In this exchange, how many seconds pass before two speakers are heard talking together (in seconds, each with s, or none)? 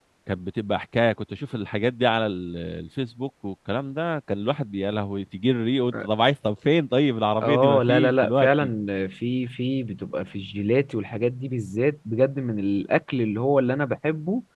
7.4 s